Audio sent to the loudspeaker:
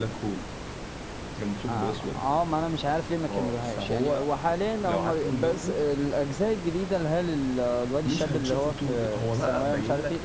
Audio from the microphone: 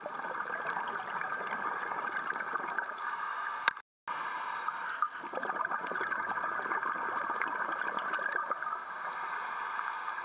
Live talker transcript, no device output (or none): none